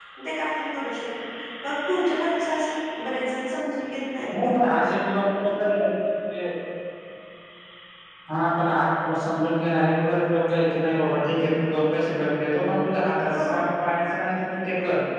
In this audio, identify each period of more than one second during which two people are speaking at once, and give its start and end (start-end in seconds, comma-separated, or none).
none